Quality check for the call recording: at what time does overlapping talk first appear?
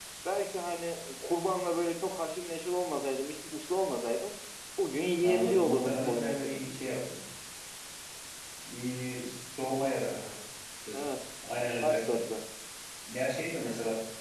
5 s

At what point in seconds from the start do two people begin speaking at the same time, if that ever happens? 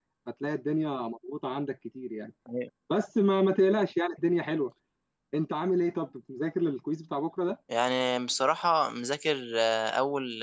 none

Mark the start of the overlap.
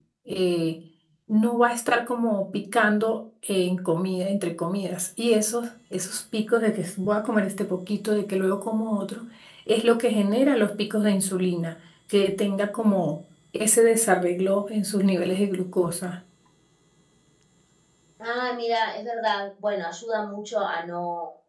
none

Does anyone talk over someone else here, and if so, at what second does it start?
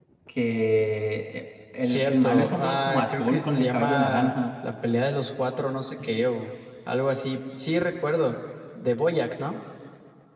2 s

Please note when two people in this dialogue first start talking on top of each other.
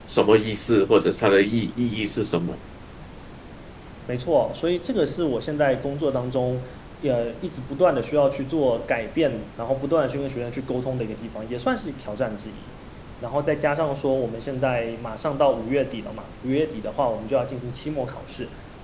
none

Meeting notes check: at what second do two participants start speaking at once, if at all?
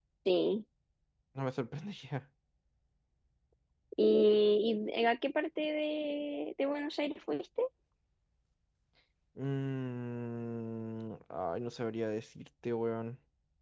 none

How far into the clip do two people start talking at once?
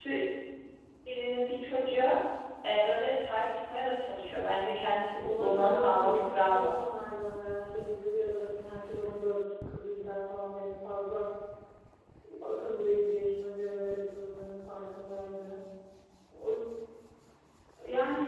5 s

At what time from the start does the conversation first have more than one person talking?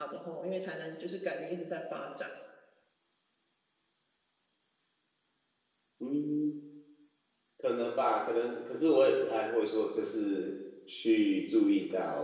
none

